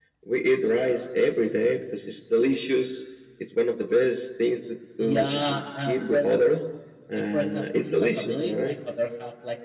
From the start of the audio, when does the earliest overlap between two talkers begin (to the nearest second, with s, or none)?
5 s